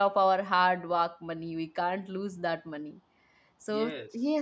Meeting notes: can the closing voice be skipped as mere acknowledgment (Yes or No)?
Yes